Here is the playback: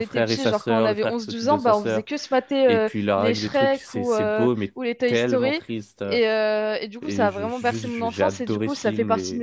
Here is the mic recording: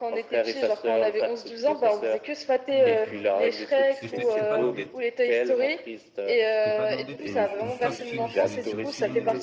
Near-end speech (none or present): present